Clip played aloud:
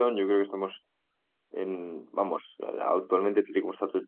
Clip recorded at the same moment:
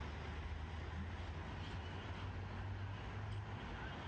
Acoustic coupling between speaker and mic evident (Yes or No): No